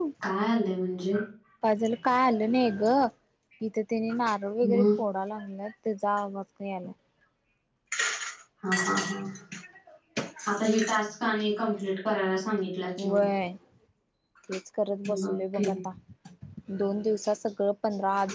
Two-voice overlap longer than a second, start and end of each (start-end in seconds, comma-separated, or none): none